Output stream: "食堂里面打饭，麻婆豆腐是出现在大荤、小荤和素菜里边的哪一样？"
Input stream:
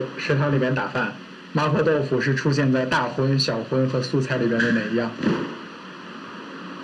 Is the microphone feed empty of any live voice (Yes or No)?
Yes